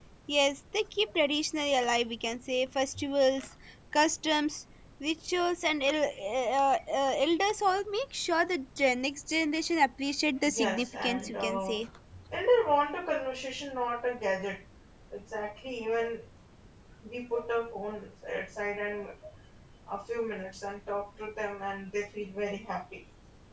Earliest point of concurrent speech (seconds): 10.4 s

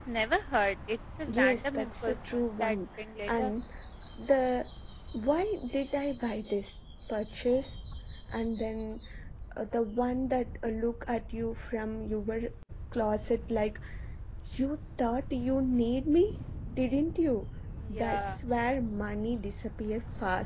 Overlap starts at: 1.3 s

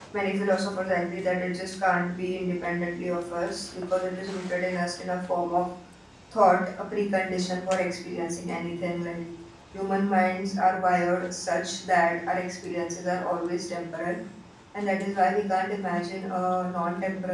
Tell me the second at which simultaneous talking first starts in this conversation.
none

